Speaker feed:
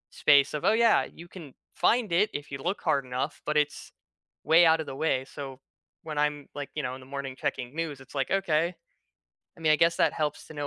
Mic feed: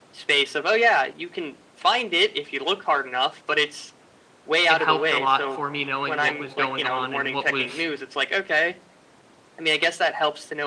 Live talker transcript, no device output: it helped a lot for me knowing what was going on and what was,

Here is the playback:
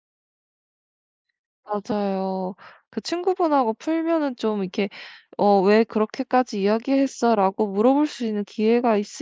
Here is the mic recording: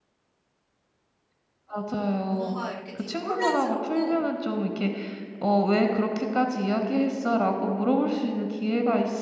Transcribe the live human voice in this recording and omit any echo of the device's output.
뭔가 이렇게 되게 혼란스럽고

